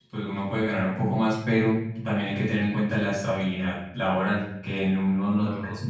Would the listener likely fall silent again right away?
Yes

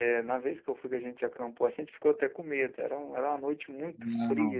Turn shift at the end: No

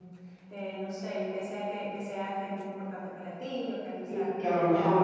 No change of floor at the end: No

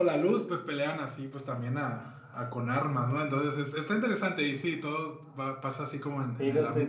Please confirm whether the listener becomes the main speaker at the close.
Yes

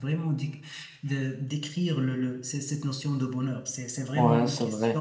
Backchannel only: No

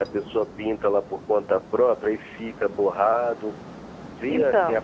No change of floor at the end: No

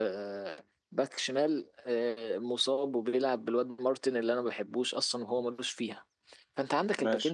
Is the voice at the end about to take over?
No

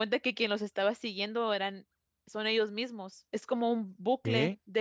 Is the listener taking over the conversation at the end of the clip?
No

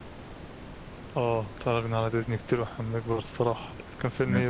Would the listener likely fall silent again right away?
No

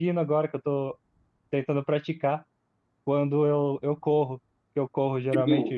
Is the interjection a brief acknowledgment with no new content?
Yes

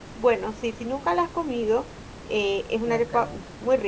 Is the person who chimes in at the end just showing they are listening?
Yes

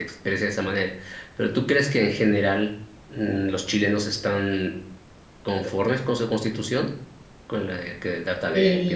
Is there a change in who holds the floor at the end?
Yes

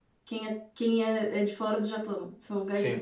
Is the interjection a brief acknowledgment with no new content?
No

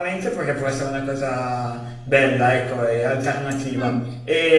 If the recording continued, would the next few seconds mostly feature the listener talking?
No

